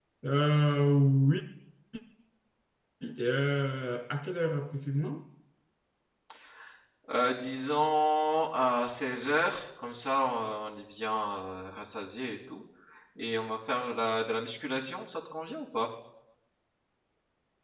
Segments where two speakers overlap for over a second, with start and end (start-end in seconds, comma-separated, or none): none